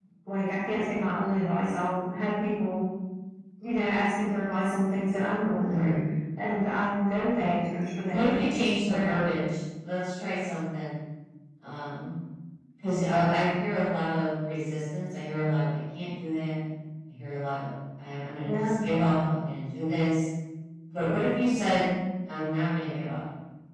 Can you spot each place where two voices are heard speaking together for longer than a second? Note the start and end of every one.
none

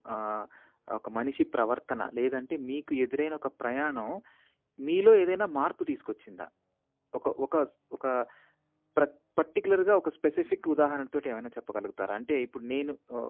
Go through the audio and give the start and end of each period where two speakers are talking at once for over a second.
none

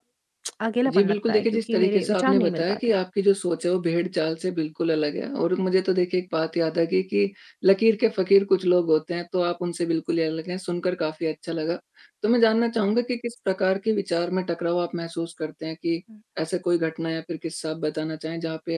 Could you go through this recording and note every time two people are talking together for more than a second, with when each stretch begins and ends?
0.9-2.8

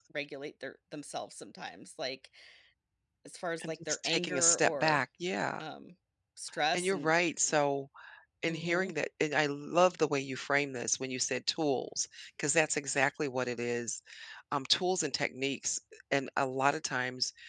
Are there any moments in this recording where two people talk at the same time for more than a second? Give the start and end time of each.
3.6-5.0

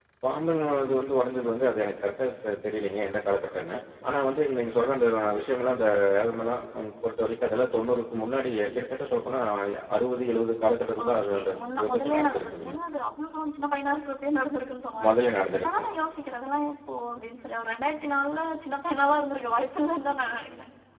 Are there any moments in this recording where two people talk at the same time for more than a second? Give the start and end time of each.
11.0-12.8

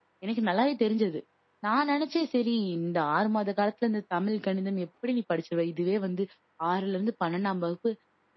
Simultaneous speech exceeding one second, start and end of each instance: none

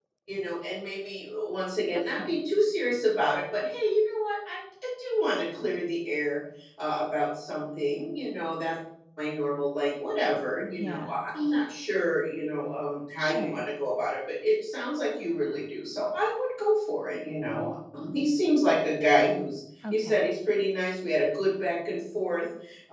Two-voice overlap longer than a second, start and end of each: none

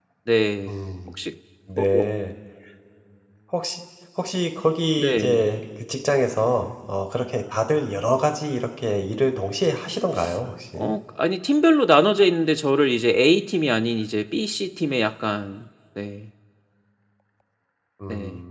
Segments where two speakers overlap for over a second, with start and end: none

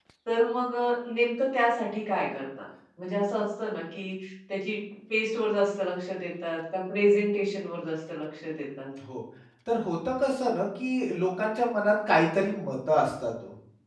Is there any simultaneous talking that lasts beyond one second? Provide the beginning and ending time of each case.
none

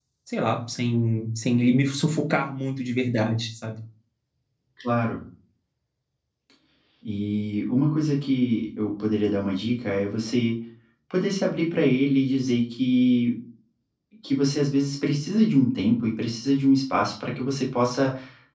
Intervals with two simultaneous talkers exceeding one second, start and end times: none

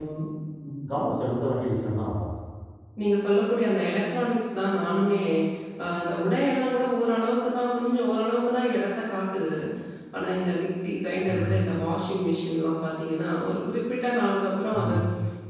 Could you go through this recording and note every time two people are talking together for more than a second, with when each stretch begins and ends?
none

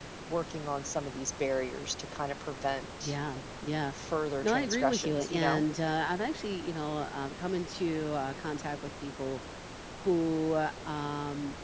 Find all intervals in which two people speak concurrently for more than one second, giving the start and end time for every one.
4.4-5.7

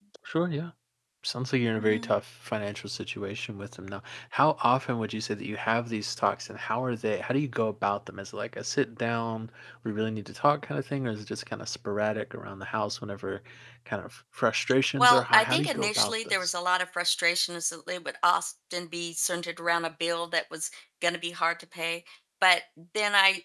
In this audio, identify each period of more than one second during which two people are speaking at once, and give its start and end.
15.0-16.5

